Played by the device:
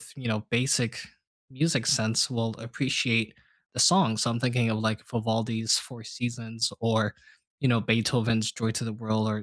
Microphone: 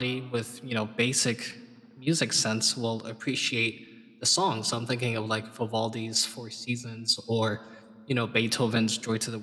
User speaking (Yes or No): No